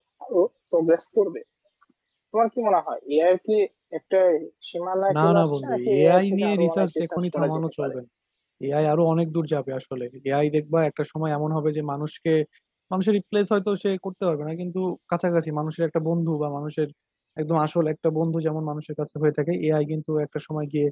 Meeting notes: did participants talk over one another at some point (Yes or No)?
Yes